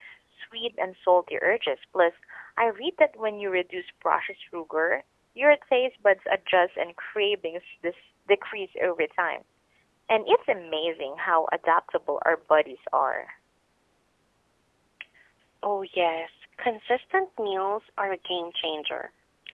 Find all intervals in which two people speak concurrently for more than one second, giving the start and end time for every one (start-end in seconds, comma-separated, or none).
none